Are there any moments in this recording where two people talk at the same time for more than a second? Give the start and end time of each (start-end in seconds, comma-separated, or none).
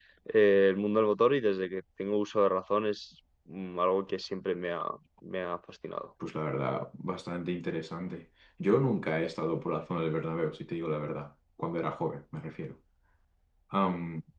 none